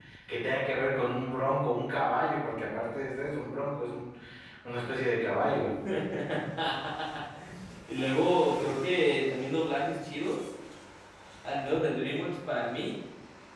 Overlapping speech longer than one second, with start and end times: none

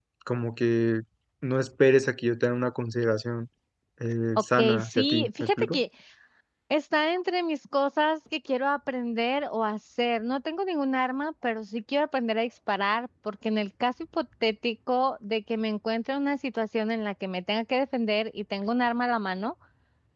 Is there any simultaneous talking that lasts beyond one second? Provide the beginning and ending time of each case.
4.6-5.8

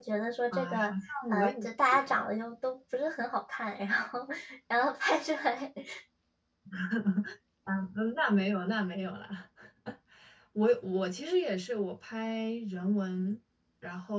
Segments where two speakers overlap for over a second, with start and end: none

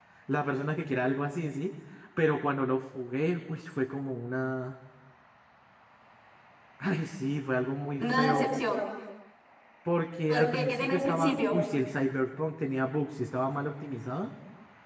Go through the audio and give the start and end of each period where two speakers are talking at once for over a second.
10.3-11.6

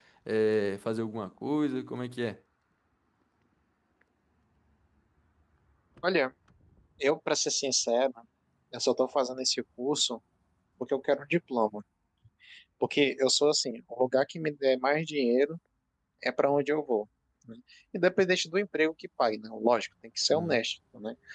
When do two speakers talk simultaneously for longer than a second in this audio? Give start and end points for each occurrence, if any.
none

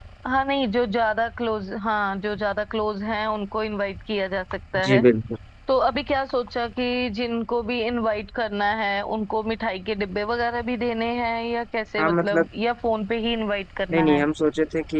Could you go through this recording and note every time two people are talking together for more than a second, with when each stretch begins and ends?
none

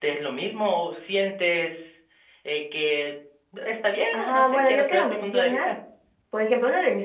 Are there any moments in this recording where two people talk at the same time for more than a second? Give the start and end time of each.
4.1-5.7

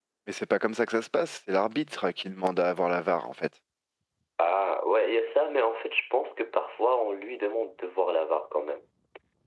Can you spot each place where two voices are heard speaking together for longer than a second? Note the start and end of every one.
none

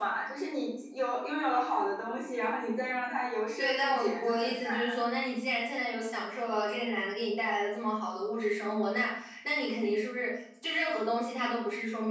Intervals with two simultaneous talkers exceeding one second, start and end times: 3.6-5.1

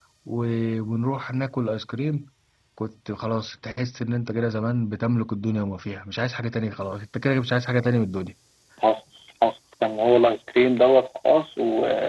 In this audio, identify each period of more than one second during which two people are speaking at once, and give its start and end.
none

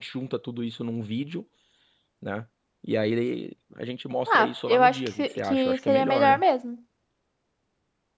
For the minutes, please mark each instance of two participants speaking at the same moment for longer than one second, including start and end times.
4.3-6.4

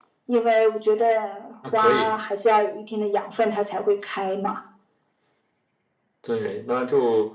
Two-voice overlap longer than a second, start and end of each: none

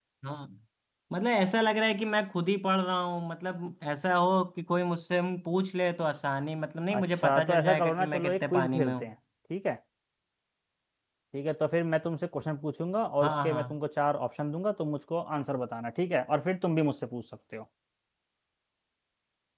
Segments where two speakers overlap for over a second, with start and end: 7.0-9.0

